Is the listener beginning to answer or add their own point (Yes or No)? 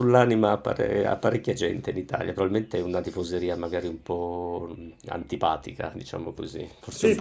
Yes